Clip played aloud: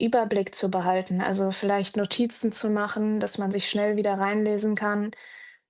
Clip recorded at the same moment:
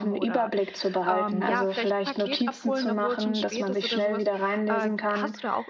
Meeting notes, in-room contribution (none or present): present